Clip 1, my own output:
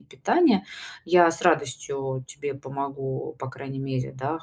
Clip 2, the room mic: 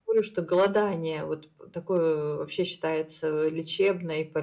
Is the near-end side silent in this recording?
No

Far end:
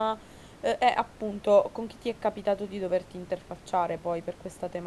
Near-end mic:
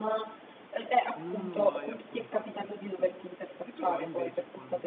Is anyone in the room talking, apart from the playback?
Yes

